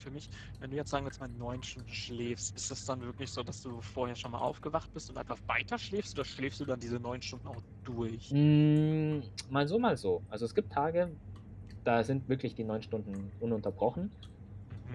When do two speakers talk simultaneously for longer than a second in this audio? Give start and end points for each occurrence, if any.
none

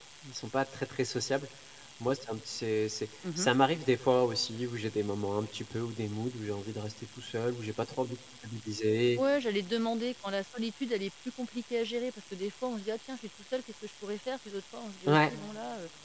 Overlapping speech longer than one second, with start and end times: none

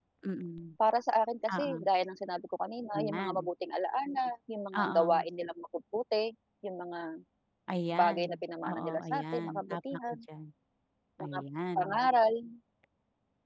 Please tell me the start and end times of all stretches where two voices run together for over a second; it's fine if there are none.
8.6-10.2

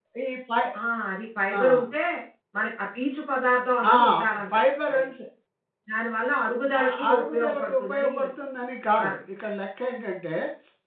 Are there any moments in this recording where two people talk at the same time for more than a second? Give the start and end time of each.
6.8-8.1

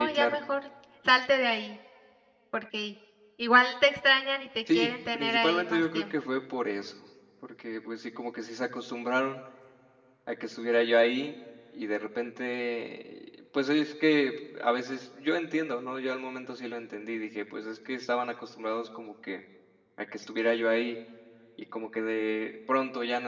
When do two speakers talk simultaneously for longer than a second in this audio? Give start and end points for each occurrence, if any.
4.7-6.0

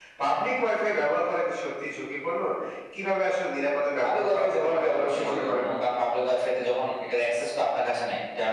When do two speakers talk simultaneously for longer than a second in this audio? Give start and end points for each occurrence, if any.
4.0-5.6

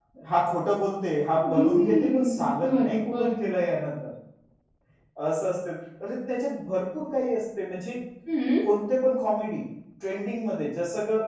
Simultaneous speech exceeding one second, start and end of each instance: 1.4-3.3

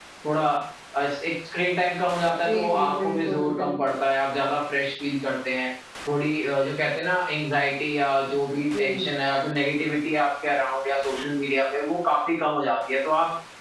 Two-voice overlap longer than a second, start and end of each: 2.3-3.7

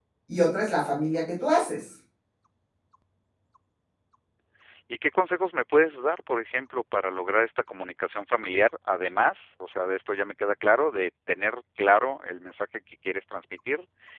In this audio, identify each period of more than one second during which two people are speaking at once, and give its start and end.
none

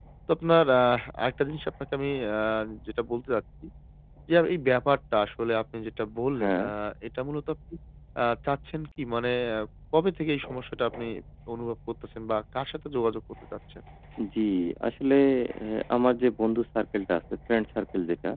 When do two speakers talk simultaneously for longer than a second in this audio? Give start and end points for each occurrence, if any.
none

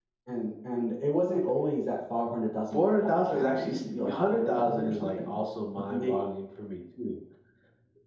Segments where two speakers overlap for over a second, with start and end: 2.7-5.3

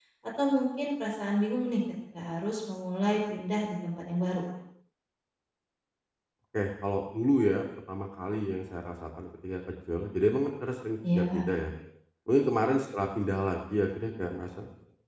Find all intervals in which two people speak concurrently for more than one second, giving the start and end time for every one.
none

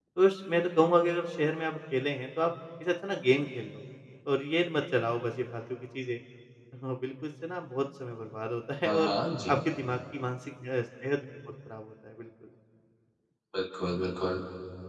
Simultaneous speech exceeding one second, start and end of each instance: none

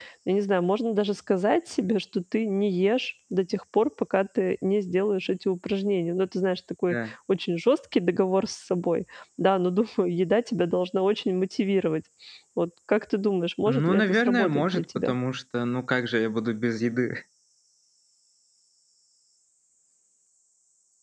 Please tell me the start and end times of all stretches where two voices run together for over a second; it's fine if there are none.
13.7-15.1

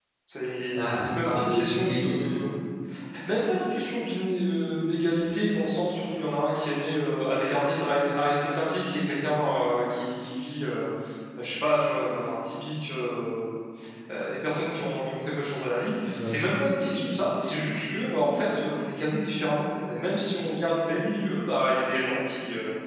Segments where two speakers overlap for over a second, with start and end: 0.7-2.4

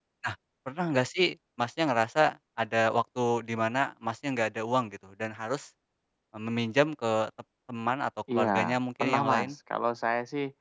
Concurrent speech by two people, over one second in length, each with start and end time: 8.3-9.6

